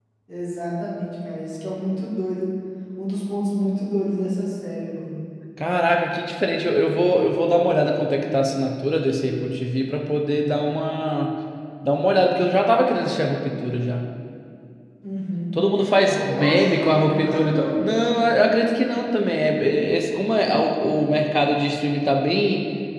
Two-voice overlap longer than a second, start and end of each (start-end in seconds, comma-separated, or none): 16.1-17.8